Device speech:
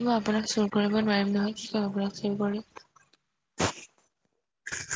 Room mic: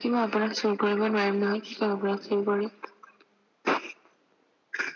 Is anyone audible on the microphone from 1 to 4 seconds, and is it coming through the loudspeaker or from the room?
echo only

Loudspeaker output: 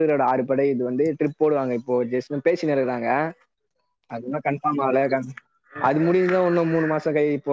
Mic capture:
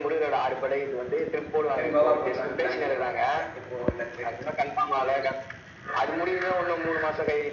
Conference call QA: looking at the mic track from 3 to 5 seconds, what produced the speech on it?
both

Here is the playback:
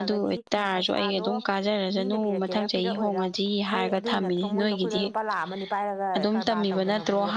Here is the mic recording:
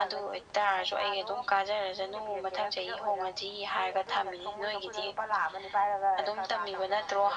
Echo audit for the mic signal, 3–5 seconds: echo only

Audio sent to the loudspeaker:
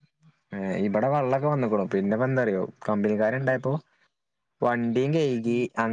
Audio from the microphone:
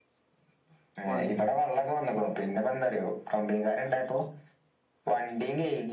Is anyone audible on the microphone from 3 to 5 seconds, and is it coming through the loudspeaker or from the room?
echo only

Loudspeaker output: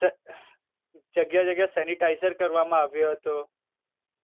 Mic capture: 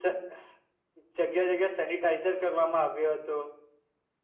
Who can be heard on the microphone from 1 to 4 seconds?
echo only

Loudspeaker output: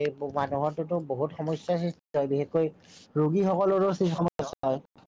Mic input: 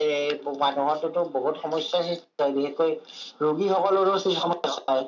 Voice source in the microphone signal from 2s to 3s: echo only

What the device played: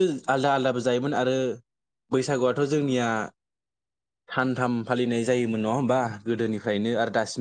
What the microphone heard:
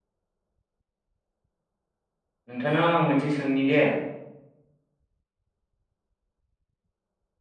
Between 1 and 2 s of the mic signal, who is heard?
neither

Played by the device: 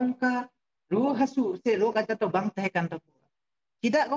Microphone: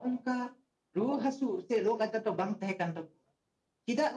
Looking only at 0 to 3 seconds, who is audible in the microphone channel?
echo only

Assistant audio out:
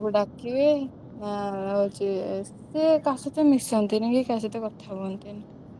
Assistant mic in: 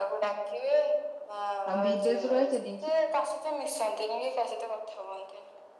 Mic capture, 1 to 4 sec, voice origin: both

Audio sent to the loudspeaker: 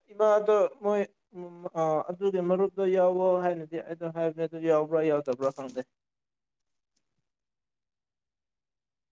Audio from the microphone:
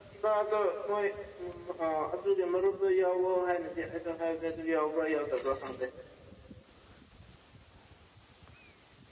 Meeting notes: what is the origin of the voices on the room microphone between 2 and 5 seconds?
echo only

